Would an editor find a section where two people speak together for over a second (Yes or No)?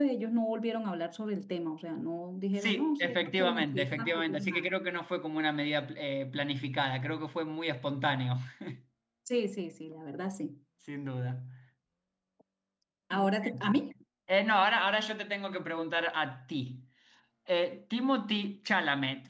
Yes